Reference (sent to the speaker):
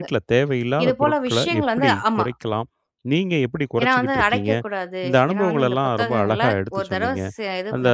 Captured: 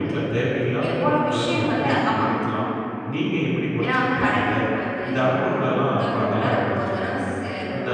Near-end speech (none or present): none